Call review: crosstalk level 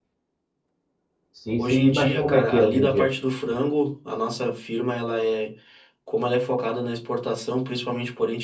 present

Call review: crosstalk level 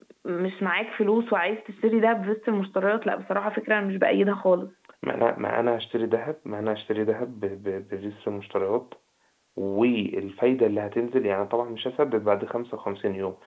none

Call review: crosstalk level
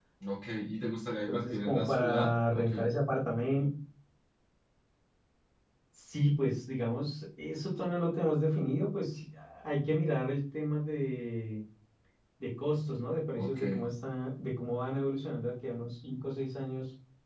present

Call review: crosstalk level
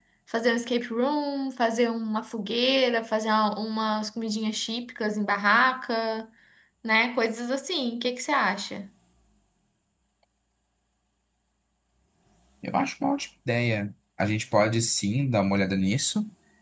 none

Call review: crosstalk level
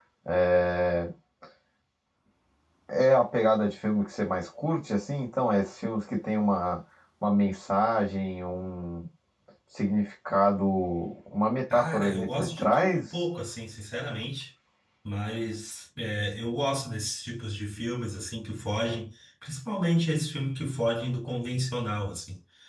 present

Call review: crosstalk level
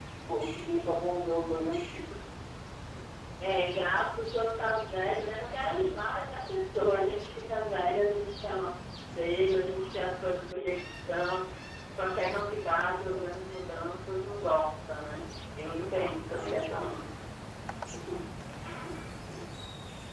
present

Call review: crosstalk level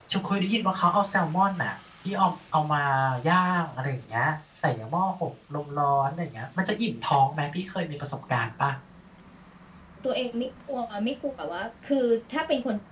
none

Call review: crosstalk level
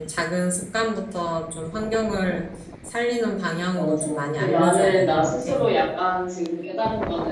present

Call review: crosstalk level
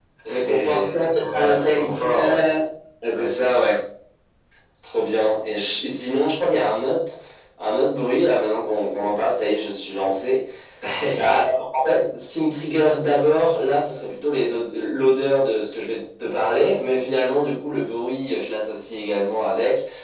present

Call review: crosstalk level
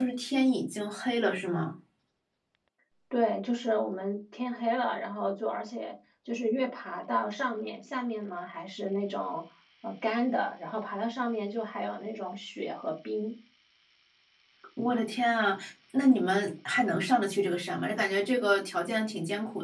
none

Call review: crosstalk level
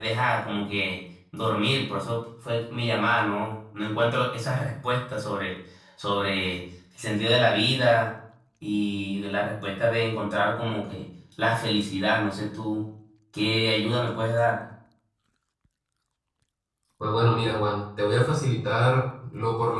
none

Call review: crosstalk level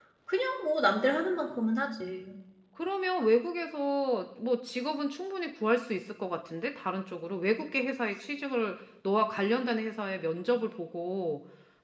none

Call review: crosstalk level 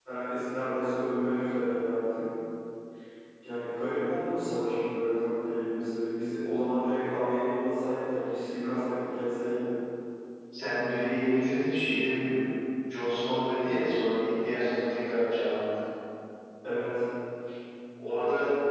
none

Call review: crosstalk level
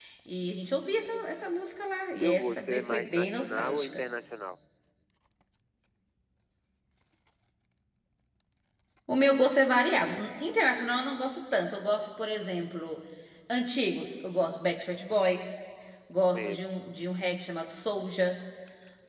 present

